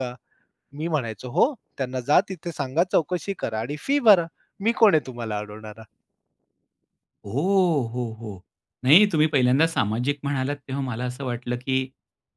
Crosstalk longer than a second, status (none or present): none